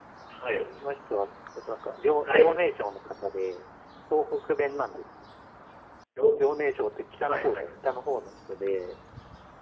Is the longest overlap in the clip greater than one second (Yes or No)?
No